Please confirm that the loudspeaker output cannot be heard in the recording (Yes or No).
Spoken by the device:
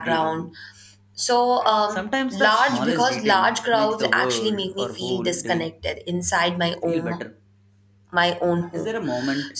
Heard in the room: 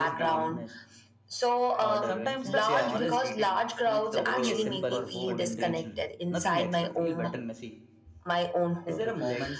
No